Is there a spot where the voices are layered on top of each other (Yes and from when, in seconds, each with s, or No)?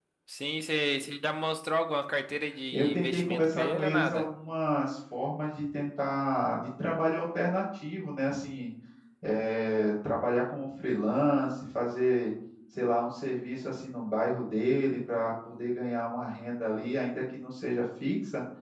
Yes, from 2.7 s